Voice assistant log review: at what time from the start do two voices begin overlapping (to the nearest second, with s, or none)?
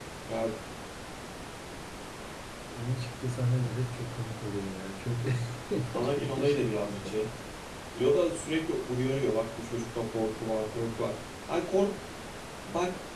6 s